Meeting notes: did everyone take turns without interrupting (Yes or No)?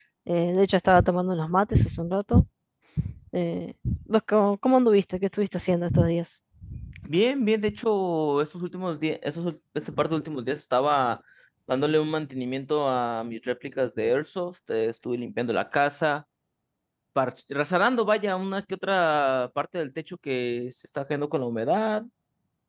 Yes